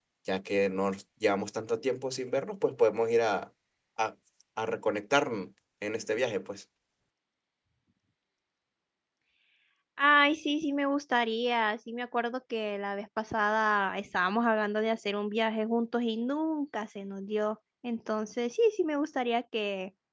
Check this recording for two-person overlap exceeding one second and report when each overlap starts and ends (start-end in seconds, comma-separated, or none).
none